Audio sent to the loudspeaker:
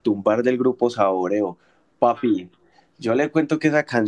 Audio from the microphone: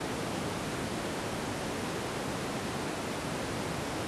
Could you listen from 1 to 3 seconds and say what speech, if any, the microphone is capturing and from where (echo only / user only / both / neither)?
neither